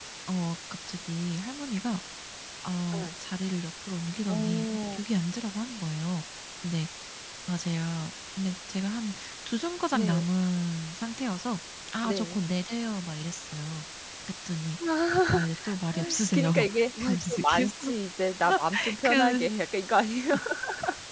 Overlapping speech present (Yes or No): Yes